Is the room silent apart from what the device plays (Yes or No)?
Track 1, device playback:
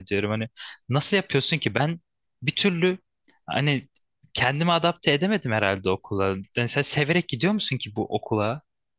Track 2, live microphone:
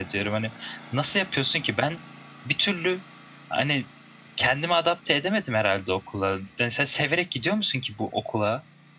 Yes